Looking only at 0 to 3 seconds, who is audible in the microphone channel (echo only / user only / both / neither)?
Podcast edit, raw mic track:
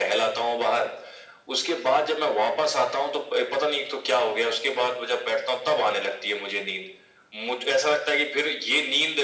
echo only